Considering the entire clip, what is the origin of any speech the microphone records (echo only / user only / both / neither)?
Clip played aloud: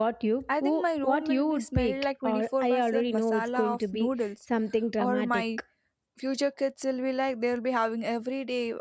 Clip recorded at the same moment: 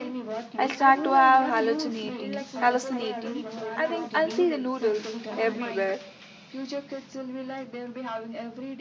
both